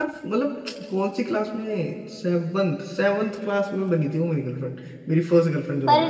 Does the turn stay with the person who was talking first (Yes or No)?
No